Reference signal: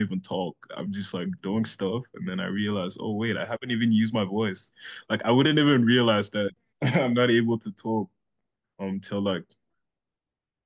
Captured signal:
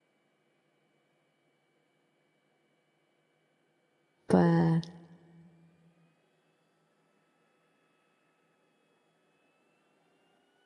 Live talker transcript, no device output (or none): but